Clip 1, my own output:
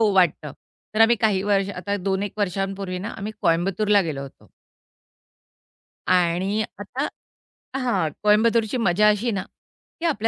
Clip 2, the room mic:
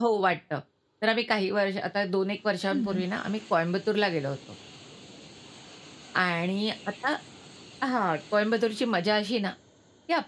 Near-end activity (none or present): present